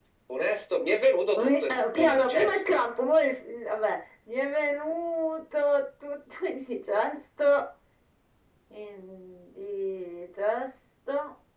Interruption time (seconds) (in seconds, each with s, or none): 1.4 s